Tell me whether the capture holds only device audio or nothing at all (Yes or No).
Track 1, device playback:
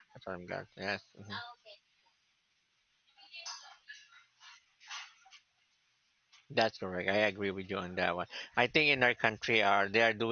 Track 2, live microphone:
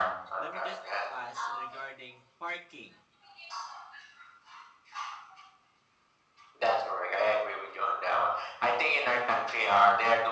No